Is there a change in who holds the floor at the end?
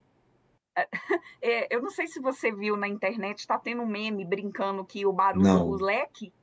No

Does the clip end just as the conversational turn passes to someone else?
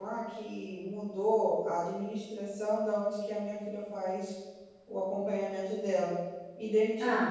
No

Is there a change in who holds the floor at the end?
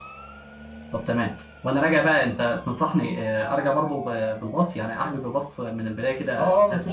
Yes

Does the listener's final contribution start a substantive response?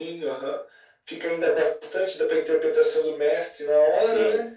Yes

